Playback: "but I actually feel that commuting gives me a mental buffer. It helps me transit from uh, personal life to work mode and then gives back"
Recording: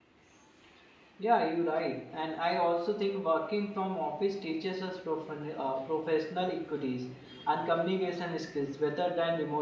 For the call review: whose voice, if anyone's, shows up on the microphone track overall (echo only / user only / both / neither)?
user only